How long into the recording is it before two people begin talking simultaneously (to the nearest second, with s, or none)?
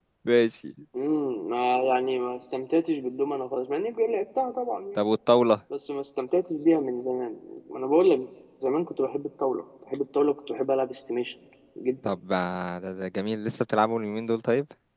none